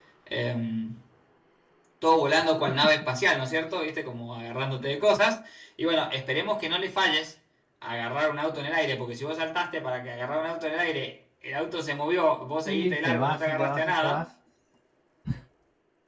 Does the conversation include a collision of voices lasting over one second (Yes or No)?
Yes